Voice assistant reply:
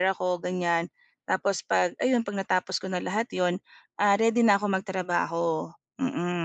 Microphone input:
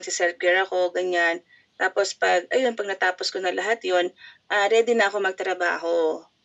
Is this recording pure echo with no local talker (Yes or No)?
Yes